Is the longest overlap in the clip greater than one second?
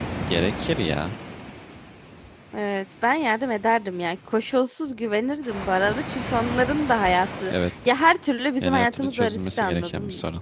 Yes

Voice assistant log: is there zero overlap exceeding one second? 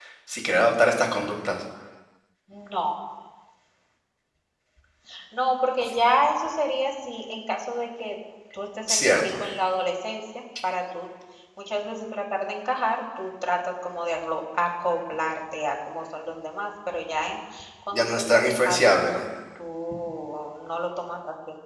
No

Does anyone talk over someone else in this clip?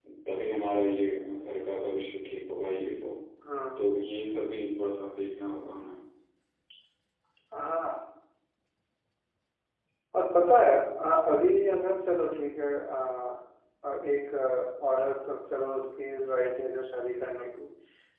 No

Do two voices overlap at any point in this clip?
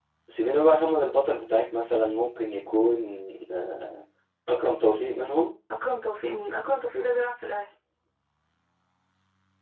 No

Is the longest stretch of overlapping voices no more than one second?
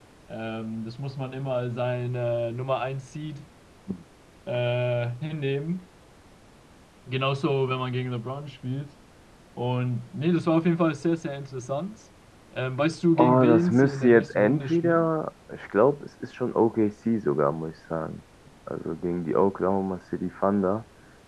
No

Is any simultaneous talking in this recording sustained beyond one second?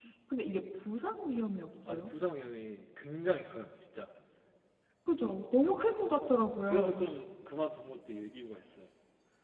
No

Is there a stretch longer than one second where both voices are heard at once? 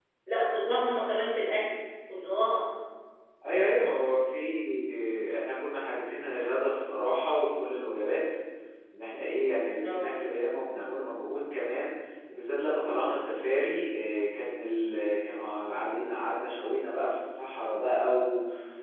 No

